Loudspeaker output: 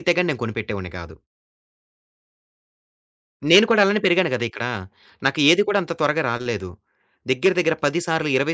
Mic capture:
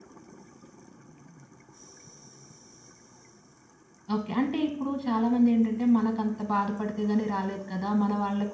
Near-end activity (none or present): present